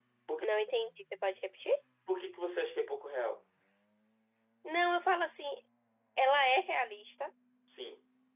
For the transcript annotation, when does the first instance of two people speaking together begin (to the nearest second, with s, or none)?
none